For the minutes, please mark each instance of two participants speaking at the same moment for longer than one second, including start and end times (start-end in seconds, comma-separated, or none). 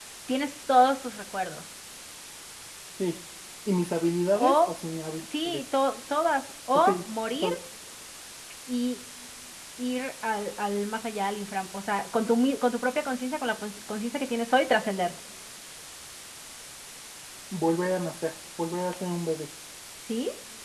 none